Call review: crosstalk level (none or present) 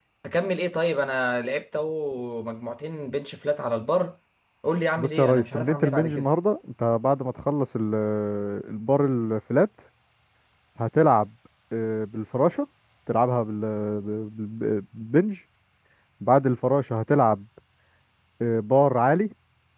present